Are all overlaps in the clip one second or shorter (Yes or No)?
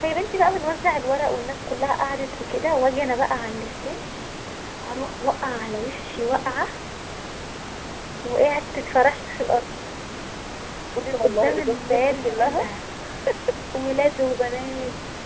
No